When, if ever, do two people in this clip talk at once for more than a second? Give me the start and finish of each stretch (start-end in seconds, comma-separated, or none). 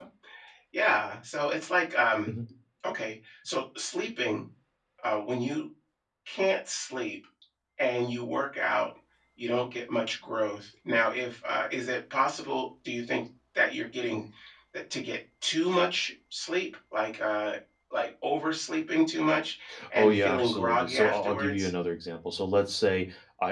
20.0-21.7